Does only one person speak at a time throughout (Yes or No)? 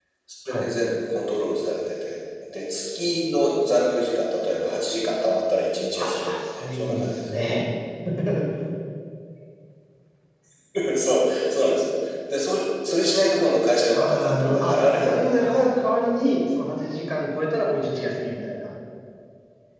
No